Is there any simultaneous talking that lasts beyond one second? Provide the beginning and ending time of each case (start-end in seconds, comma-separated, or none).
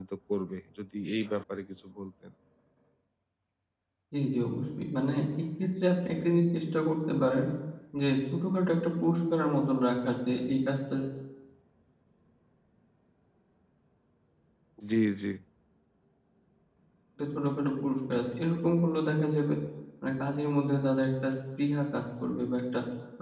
none